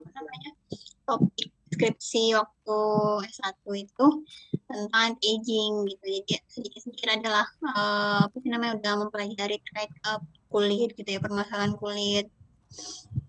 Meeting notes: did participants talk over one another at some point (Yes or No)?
No